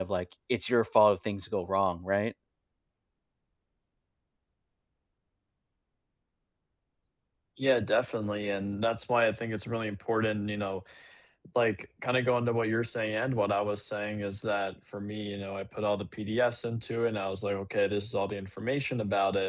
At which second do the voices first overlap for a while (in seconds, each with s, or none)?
none